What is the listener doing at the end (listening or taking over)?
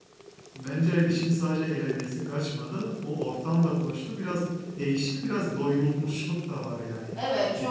taking over